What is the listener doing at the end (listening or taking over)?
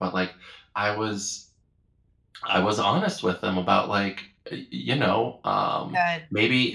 listening